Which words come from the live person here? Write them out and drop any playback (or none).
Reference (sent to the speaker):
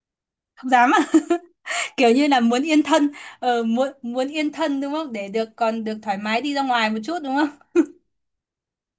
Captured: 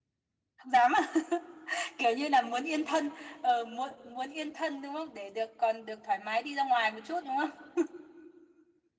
none